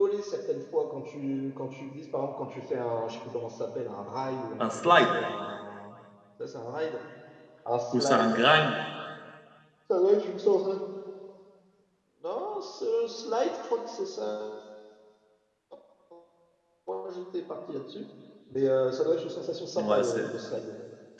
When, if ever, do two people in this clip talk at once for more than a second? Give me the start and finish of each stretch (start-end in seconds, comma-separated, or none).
none